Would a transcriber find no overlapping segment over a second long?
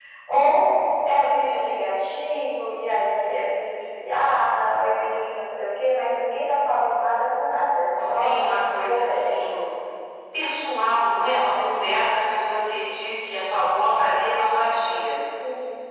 Yes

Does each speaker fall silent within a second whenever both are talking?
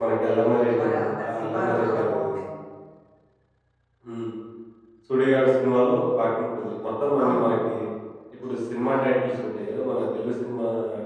No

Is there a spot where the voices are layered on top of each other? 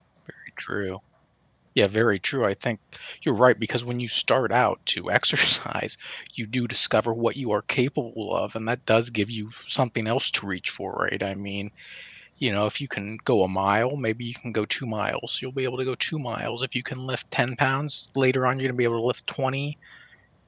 No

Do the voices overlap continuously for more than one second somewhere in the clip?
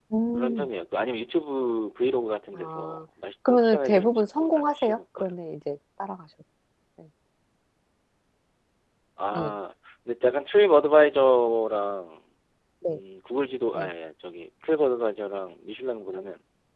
Yes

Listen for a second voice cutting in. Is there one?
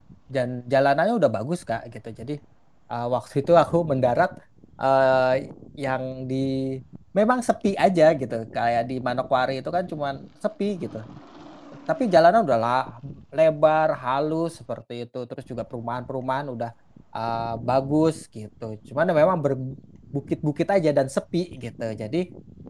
No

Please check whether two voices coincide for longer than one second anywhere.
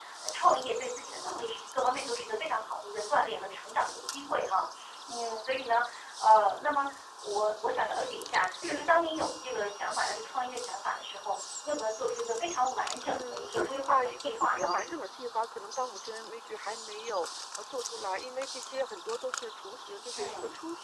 Yes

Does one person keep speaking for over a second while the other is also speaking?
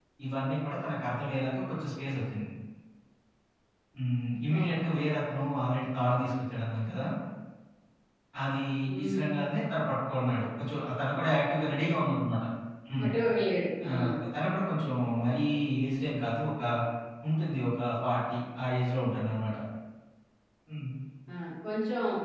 No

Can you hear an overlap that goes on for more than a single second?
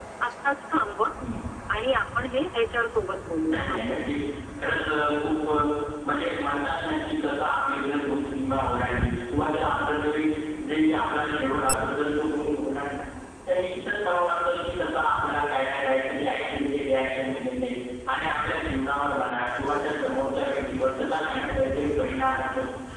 No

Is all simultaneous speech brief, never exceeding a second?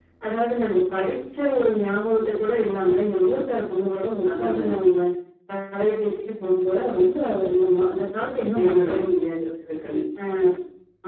Yes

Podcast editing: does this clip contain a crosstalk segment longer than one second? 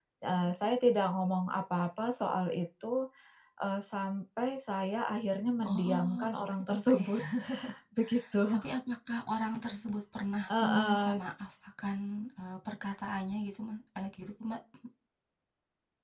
Yes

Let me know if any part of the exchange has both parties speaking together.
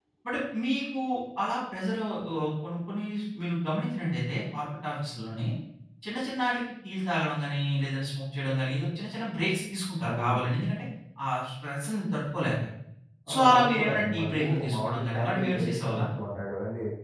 Yes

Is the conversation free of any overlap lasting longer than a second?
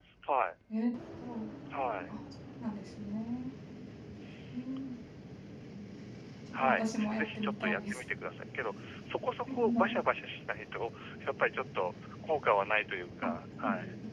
No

